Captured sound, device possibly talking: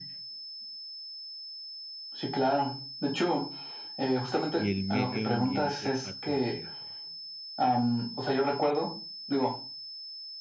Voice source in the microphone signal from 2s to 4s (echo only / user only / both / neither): echo only